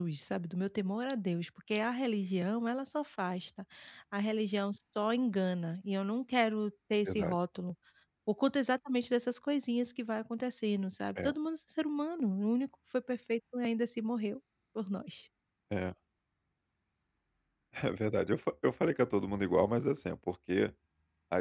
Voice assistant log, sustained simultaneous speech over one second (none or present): none